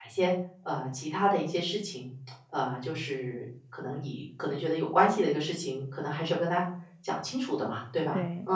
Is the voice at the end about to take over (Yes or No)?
Yes